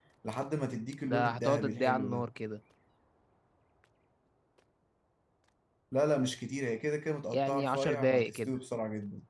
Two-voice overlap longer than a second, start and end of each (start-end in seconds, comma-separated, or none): 1.0-2.3, 7.3-8.6